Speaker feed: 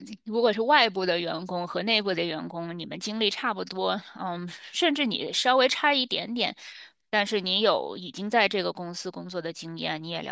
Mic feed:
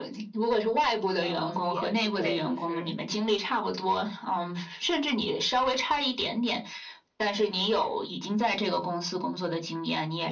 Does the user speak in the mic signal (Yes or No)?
Yes